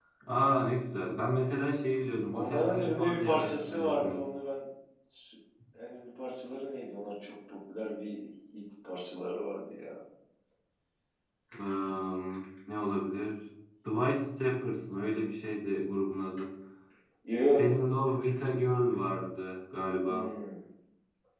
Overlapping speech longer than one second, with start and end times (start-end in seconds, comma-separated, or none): 2.3-4.2